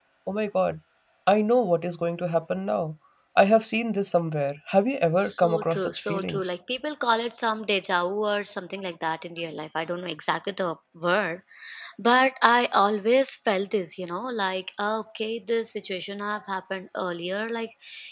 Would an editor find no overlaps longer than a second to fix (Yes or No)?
No